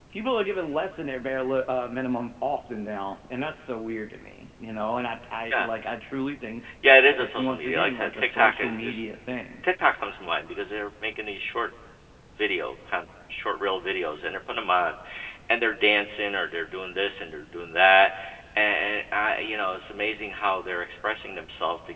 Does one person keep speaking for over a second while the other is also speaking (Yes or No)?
Yes